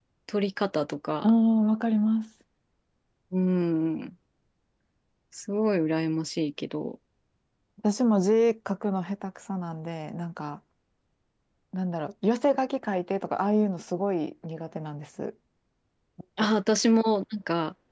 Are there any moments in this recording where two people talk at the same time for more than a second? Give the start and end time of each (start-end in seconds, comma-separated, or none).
none